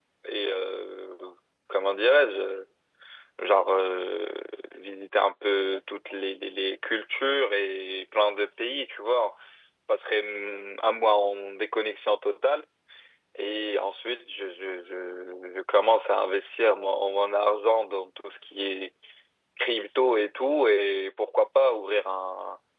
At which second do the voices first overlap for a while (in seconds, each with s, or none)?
none